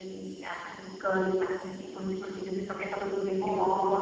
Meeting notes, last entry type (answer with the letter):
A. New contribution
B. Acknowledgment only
A